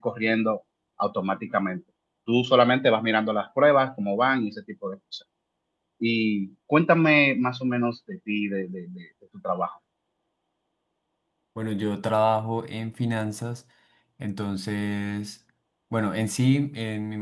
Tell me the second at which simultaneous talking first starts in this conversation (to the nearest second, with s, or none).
none